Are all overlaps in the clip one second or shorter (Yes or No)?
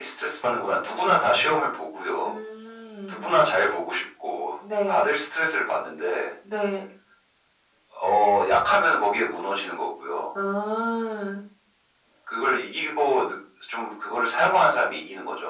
Yes